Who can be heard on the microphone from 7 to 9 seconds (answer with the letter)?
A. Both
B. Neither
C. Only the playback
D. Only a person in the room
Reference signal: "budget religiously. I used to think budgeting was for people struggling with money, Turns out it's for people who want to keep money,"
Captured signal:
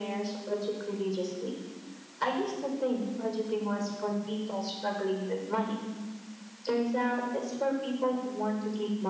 C